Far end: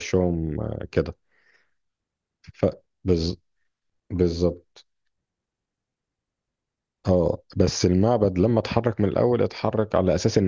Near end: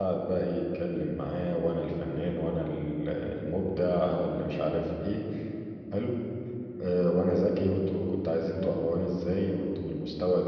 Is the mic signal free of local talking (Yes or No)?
No